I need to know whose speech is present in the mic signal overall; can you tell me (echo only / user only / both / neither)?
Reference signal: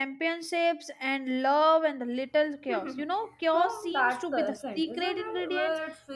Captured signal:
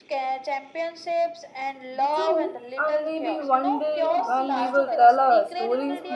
both